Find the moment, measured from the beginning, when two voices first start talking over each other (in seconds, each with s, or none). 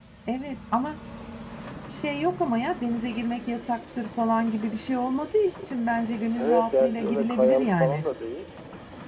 6.3 s